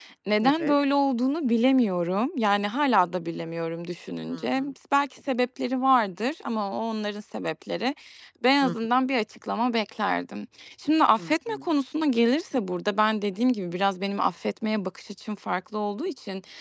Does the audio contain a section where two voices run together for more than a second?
No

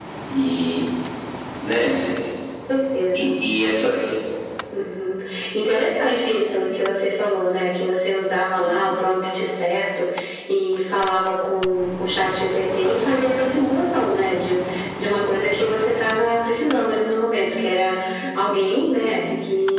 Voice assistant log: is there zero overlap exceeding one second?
Yes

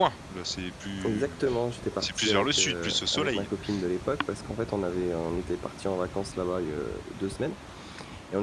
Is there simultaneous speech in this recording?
Yes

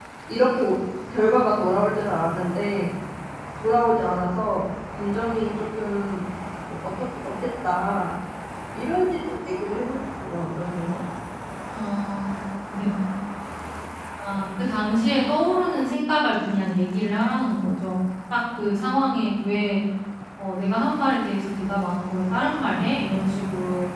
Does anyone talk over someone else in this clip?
No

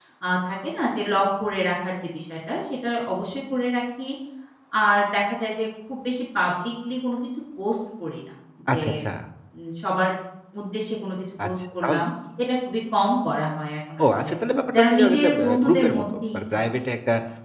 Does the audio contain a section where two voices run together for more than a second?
Yes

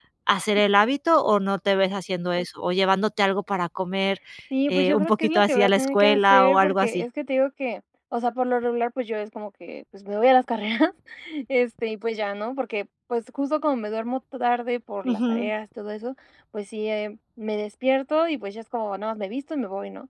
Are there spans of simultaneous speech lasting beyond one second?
Yes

